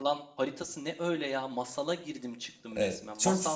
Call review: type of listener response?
taking over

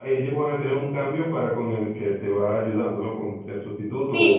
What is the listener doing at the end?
taking over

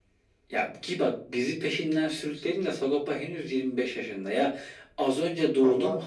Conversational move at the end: listening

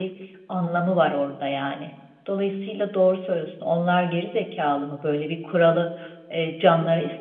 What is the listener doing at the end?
listening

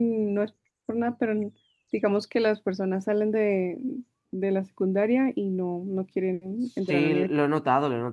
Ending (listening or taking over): taking over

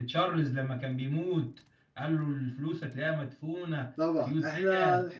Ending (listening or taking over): taking over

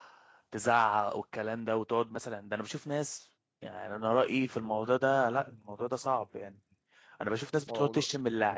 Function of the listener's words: listening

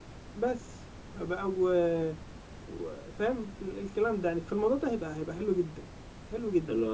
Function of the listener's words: taking over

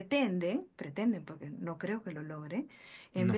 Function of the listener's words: listening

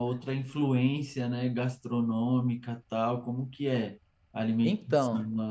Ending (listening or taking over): taking over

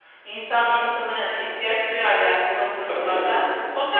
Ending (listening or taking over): listening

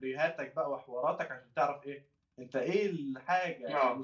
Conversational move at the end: listening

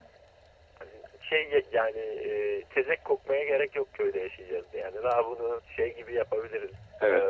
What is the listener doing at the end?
taking over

